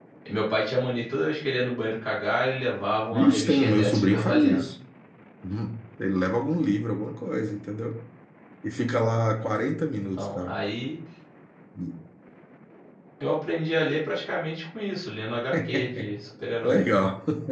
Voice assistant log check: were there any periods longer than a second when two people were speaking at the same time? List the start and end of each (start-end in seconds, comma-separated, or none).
3.1-4.6